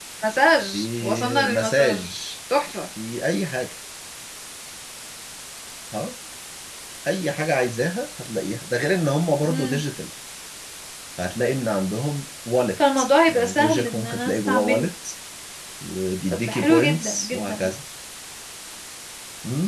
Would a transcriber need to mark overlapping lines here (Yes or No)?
Yes